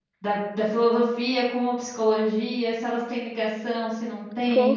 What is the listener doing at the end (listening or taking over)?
taking over